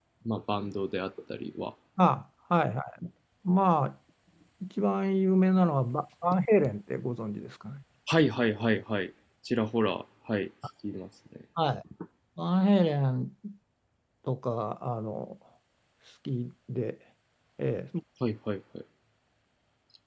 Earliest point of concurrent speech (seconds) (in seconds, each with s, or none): none